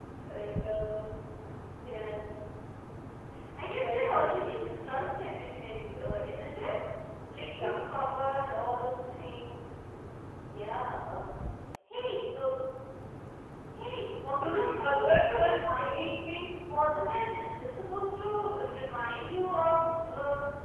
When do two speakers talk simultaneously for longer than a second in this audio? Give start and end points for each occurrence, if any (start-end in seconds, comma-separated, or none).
14.4-15.9